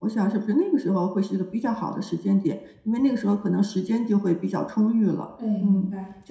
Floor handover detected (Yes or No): Yes